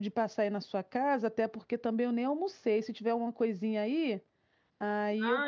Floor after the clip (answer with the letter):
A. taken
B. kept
A